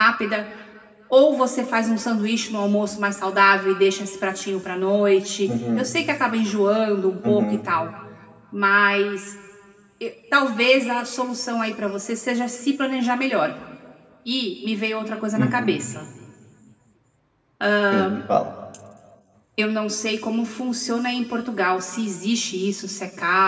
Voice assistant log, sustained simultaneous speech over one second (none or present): none